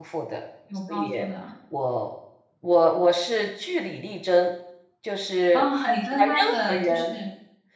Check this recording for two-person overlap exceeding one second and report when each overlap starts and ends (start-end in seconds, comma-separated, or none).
5.5-7.2